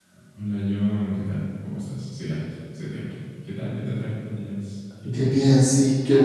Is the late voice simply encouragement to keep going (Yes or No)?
No